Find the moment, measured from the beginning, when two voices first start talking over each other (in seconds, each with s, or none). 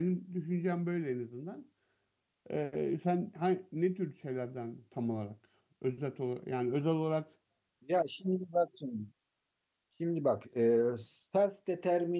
none